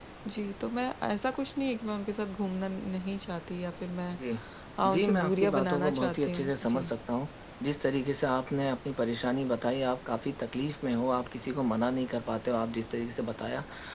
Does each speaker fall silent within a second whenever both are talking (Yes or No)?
No